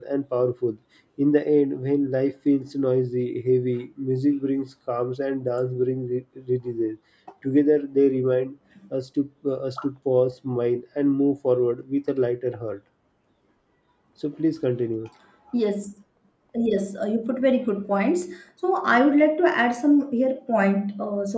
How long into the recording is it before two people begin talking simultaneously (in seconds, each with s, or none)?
none